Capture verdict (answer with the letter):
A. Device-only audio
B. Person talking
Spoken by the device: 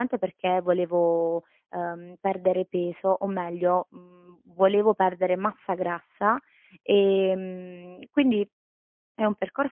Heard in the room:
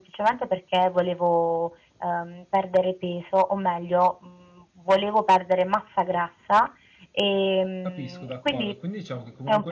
B